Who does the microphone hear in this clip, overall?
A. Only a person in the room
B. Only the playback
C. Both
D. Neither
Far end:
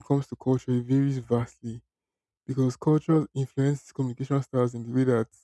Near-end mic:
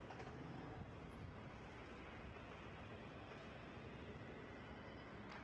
D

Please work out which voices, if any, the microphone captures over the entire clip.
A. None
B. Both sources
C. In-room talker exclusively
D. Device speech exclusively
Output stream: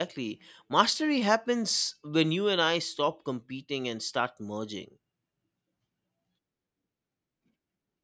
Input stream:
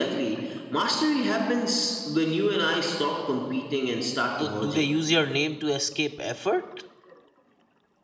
B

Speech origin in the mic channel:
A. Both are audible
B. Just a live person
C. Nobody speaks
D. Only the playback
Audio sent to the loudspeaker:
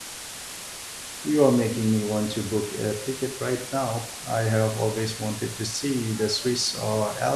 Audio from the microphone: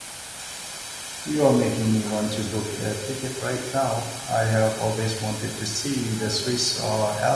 D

